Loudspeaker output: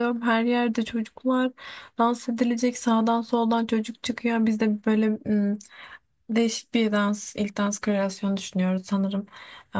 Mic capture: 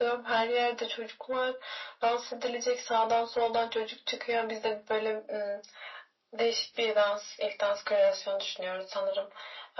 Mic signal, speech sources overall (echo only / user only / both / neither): echo only